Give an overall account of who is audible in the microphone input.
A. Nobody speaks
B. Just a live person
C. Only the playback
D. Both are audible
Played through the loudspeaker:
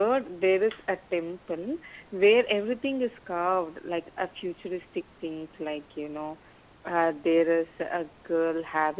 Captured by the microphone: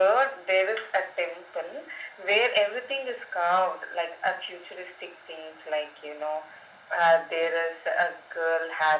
C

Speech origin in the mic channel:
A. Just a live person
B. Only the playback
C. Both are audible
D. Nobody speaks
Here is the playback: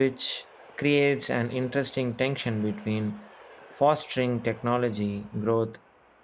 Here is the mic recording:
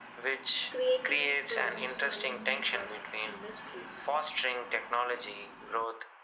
C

